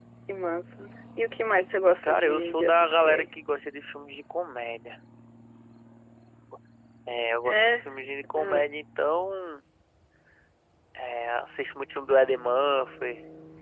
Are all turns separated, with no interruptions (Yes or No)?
No